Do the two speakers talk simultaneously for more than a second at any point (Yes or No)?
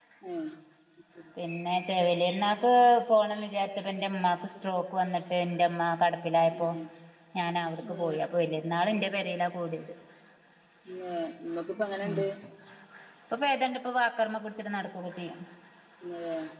No